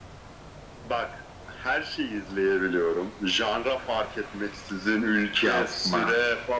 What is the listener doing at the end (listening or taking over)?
listening